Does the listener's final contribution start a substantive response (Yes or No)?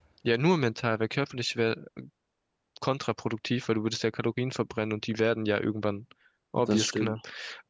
No